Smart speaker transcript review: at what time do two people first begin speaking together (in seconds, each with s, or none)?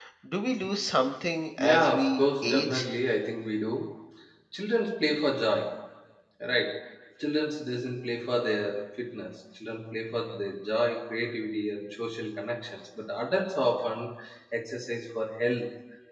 1.6 s